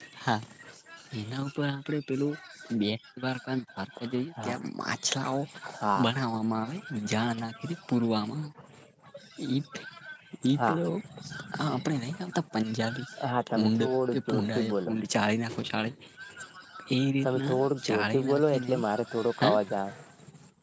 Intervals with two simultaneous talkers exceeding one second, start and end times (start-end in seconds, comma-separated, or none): 13.5-14.9, 17.2-18.8